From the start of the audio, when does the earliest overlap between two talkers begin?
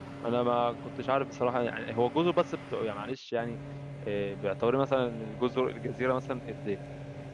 none

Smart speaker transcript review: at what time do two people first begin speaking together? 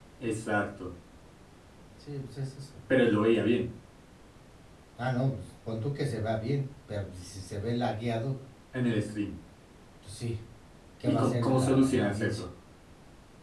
11.0 s

